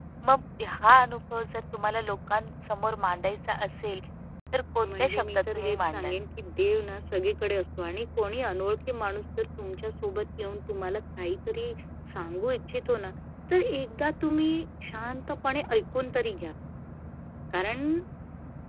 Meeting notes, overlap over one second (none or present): present